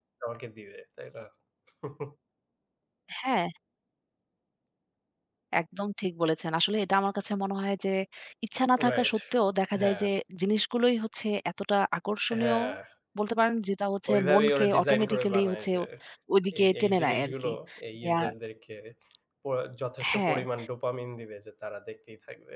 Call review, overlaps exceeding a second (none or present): present